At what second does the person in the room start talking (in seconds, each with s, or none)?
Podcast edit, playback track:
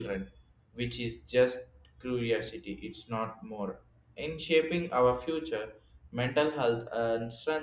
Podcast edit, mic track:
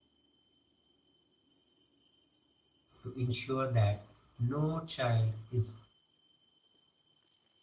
3.0 s